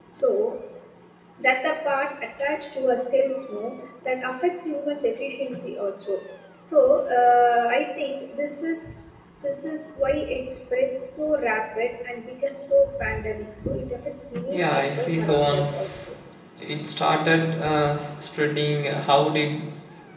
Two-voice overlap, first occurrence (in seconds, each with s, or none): 14.5 s